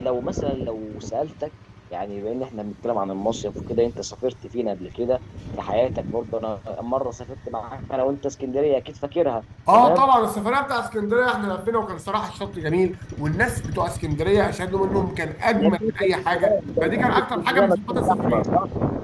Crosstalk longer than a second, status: present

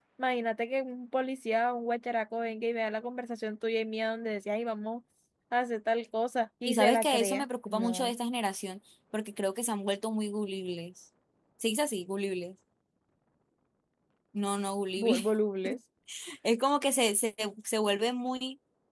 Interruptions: present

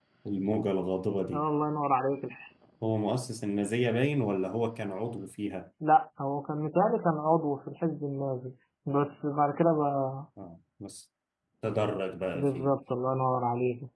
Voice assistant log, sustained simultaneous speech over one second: none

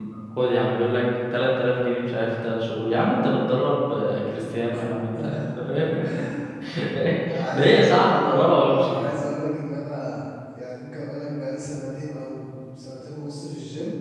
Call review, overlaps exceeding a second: present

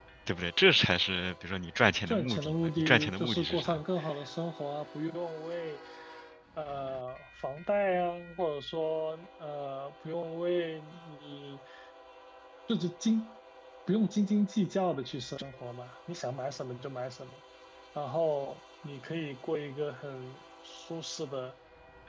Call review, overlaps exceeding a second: present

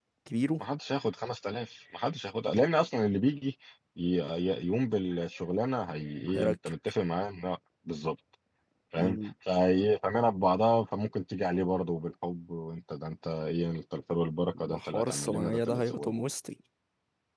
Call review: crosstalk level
present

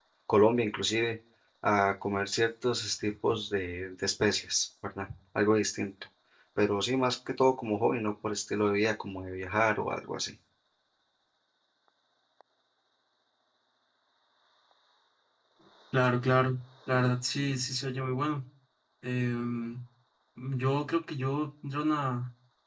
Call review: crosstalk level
none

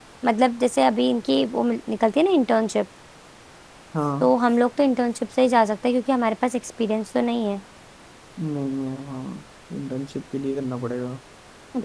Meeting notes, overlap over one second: none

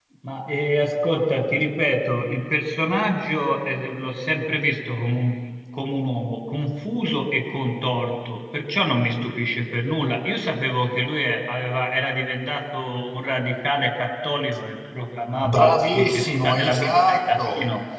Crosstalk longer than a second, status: present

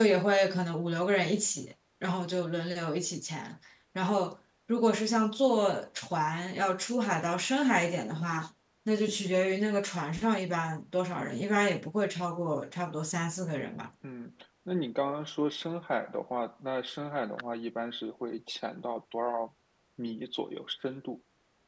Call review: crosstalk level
none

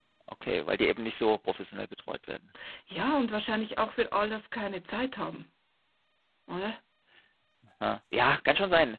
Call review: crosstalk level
none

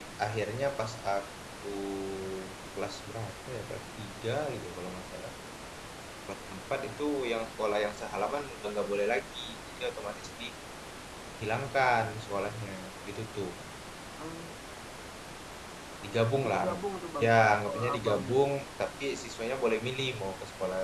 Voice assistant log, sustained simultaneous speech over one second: present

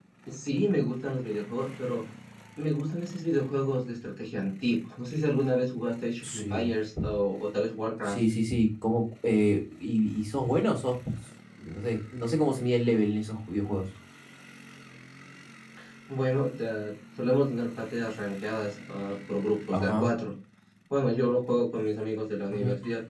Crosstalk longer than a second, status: none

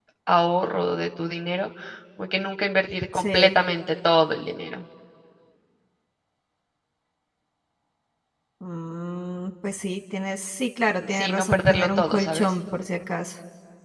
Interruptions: present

